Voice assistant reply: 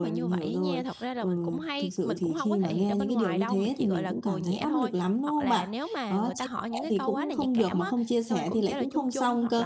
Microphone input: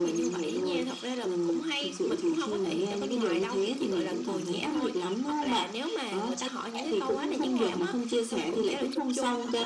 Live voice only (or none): đúng rồi.